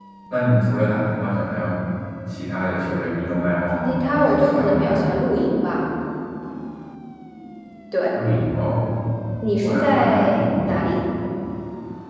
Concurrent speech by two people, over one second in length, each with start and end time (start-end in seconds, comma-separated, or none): 3.8-5.1, 9.6-10.8